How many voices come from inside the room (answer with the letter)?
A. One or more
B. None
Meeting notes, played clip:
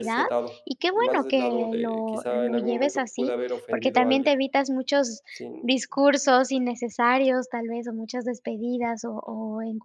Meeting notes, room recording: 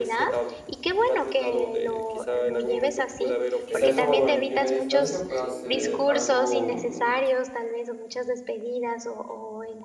A